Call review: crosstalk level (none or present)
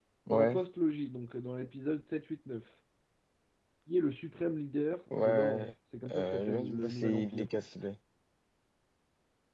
present